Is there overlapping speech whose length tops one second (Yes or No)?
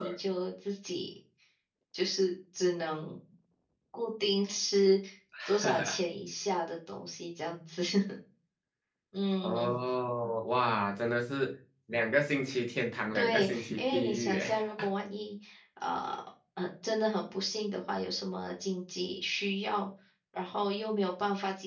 Yes